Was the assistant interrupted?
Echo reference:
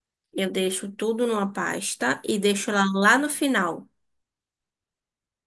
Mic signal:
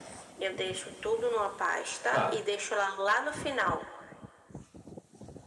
Yes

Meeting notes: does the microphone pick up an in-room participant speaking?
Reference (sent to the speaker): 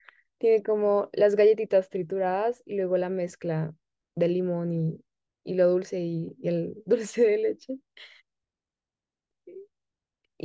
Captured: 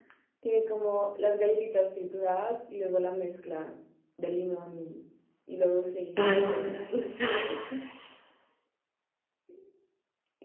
Yes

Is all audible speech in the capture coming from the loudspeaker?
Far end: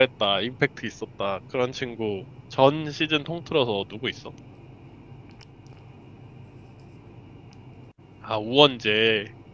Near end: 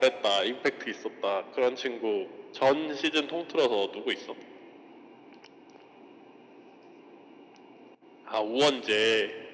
Yes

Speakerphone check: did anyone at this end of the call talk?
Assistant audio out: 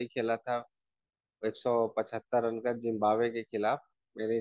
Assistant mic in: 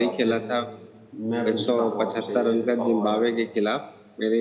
Yes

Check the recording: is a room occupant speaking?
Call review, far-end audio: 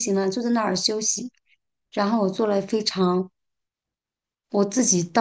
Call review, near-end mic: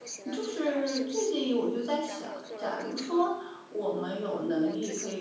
Yes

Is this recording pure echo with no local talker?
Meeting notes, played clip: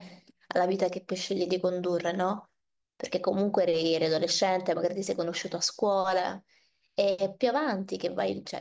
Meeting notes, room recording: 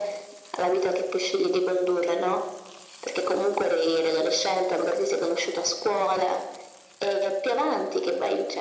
Yes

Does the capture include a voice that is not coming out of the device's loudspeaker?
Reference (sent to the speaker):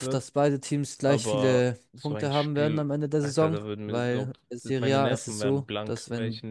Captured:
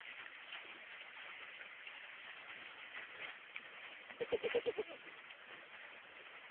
No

